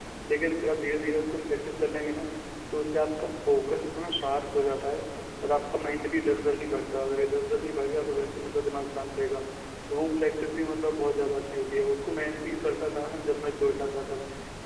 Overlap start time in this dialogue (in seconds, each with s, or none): none